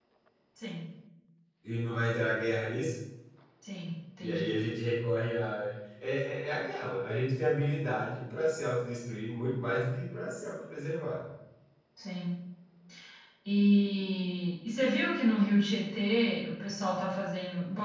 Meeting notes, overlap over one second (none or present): none